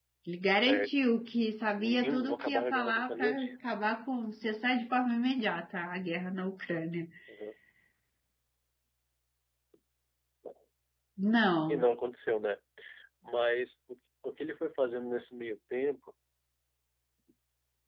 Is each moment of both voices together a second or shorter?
No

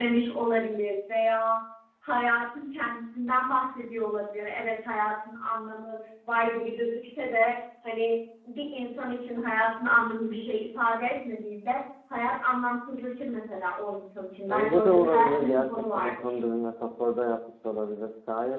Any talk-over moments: Yes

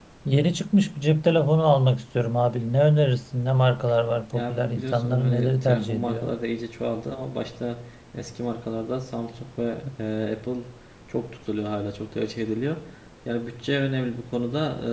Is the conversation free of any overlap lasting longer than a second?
No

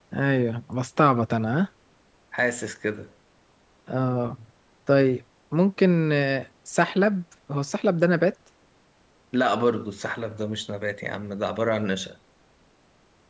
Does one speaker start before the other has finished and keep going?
No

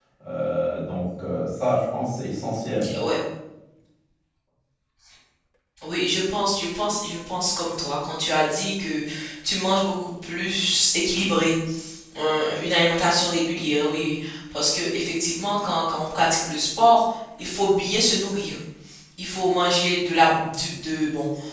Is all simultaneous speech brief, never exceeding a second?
Yes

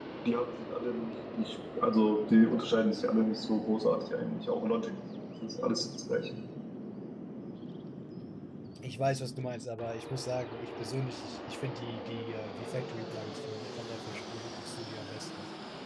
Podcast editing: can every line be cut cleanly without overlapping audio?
Yes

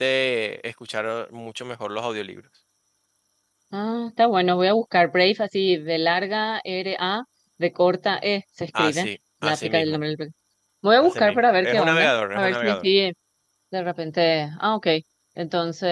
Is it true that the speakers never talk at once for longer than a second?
No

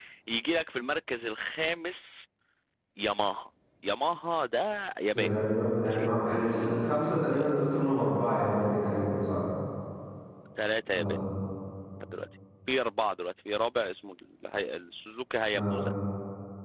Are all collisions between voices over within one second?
Yes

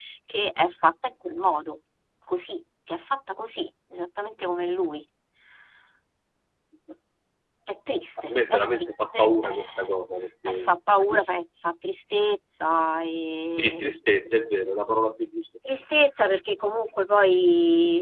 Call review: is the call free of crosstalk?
No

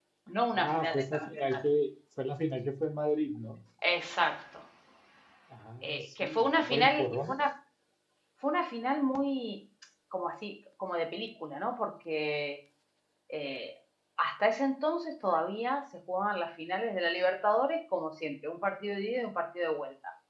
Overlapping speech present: Yes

